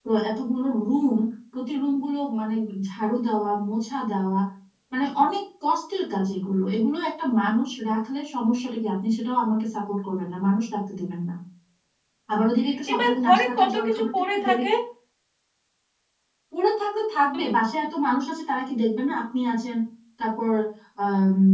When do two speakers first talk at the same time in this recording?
12.9 s

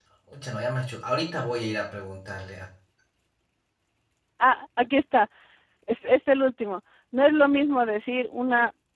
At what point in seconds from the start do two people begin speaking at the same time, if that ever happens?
none

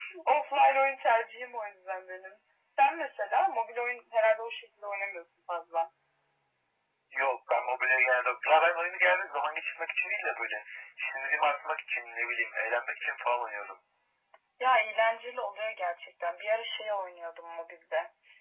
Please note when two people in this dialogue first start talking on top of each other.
none

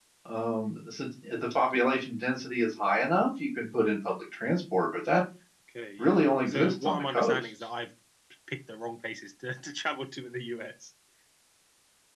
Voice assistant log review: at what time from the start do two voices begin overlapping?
6.0 s

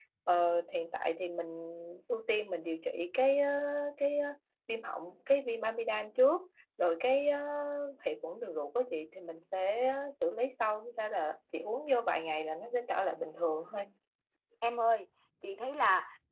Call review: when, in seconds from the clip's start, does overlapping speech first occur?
none

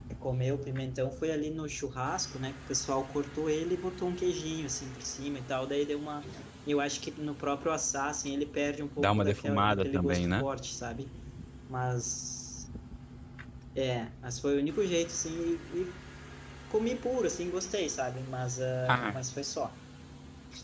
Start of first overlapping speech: 9.0 s

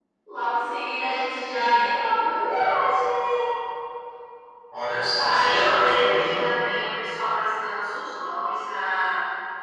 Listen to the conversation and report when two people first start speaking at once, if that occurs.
5.2 s

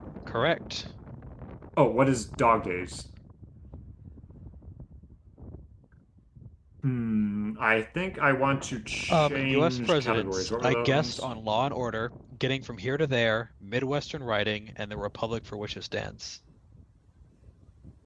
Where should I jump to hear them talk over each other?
9.1 s

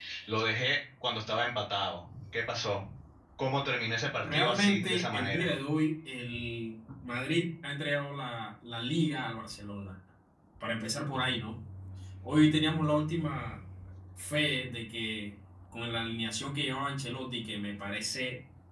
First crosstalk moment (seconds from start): 4.2 s

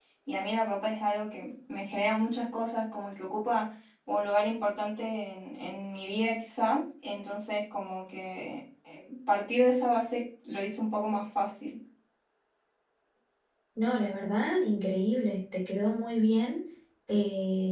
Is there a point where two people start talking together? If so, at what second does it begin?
none

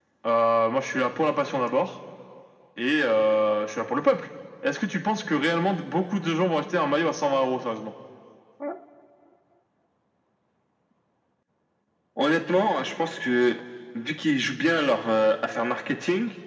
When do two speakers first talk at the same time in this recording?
none

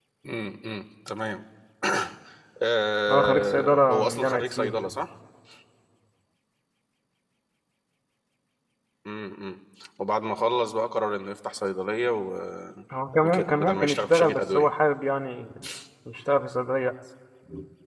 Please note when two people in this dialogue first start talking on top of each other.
3.1 s

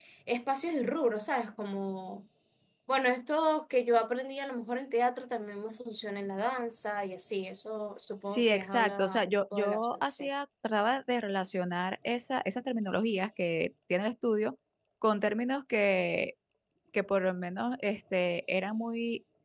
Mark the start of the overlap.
8.3 s

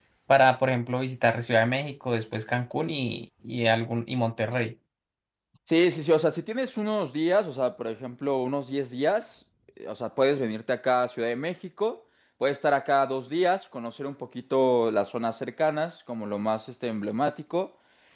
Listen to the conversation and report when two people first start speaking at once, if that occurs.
none

